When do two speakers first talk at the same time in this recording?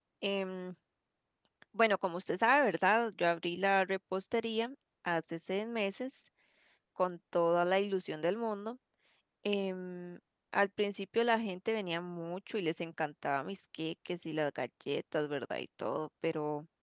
none

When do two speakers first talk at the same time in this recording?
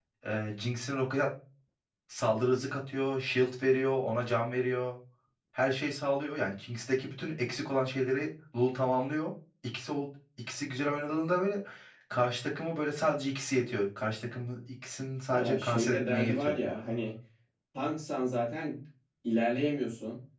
15 s

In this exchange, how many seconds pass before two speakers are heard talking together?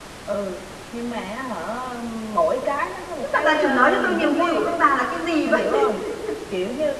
3 s

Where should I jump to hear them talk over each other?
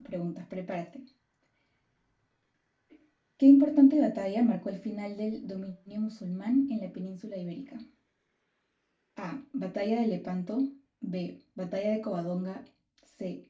none

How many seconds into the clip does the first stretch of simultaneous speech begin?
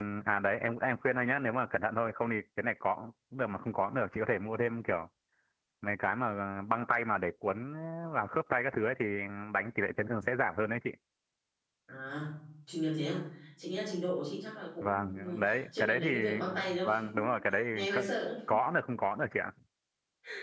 15 s

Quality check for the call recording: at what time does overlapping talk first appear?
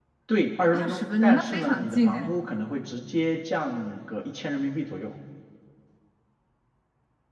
1 s

